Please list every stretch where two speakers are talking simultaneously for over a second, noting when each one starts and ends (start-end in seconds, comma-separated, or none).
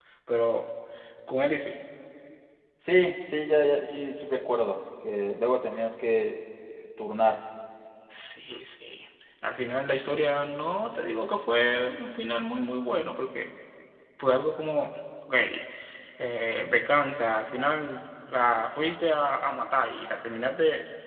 none